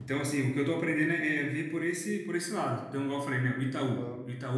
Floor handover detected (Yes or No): No